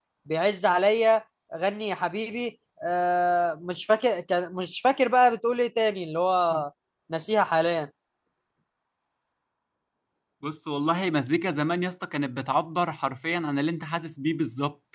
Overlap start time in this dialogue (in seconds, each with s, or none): none